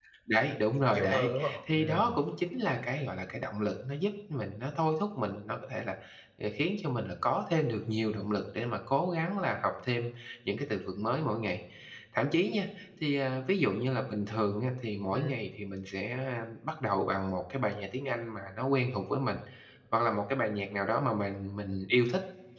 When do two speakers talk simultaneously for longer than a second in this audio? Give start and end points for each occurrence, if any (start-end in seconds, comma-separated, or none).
0.9-2.2